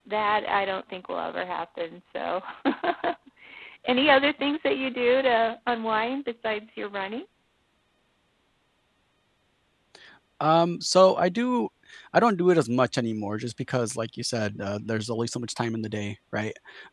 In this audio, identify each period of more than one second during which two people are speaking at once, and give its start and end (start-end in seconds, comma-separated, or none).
none